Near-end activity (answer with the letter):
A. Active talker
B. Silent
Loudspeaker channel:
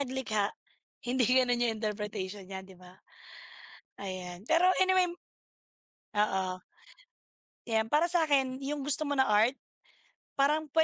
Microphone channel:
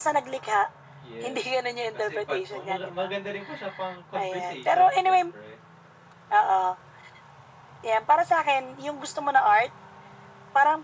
A